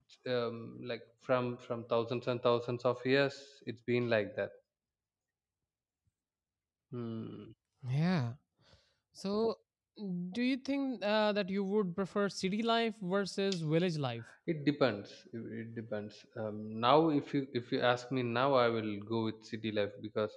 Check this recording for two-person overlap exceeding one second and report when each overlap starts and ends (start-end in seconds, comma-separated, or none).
none